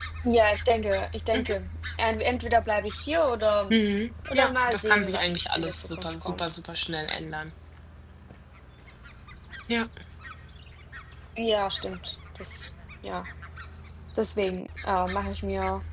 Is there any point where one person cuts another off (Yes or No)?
Yes